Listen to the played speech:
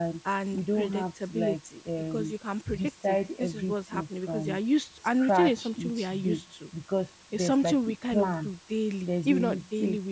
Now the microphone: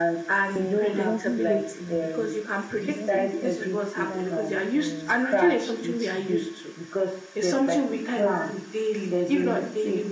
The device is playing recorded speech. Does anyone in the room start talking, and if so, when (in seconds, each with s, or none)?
0.6 s